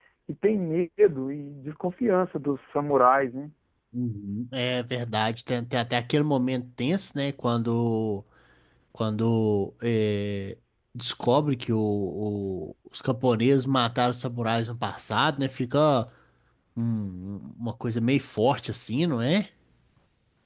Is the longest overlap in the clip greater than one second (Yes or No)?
No